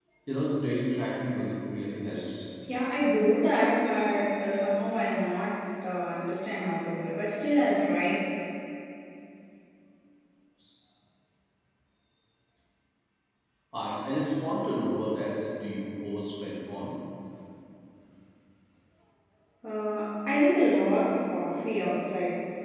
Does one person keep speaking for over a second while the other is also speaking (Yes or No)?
No